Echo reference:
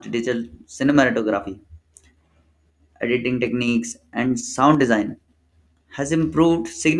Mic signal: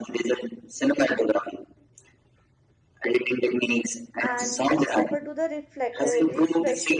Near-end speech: present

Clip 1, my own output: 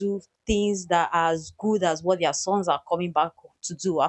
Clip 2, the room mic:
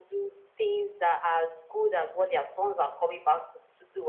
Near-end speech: none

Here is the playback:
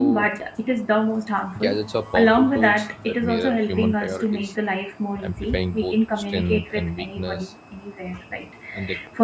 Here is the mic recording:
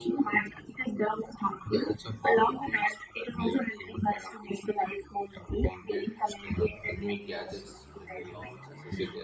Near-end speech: present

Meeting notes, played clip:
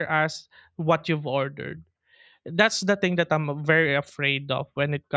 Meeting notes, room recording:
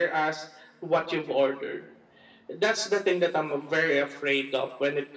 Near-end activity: none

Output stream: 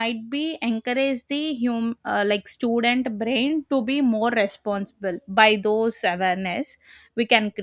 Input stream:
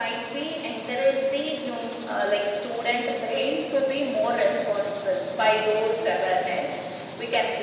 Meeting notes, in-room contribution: none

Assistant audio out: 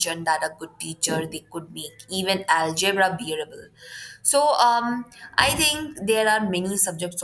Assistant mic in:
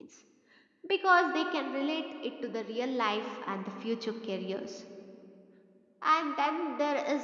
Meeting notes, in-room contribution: present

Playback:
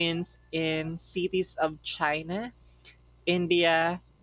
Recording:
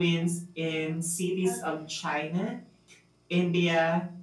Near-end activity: present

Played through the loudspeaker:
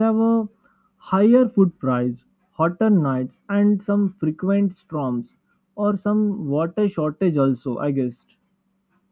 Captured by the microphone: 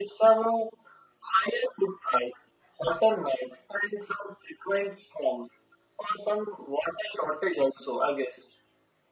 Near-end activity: none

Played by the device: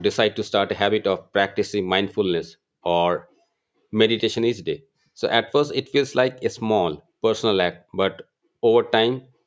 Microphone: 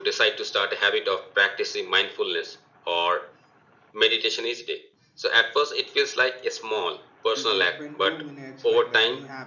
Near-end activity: present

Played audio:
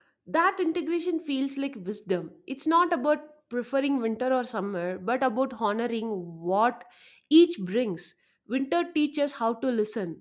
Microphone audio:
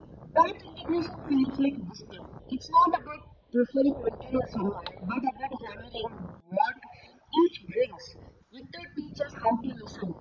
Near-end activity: none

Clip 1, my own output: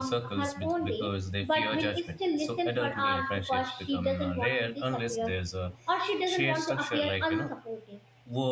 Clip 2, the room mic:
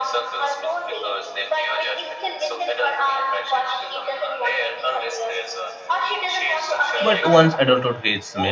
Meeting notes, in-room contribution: present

